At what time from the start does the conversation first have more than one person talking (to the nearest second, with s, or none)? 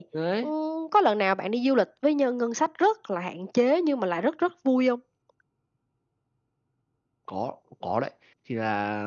none